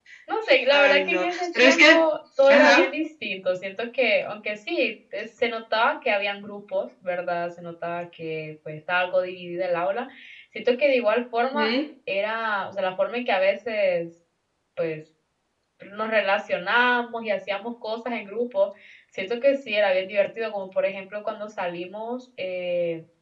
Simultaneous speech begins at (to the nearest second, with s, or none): 1 s